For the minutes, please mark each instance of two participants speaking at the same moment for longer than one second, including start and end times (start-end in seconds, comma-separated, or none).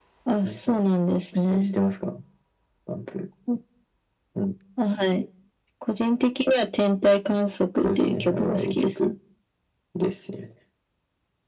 7.8-9.1